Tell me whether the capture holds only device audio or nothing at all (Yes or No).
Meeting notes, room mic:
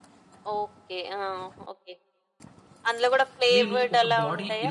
No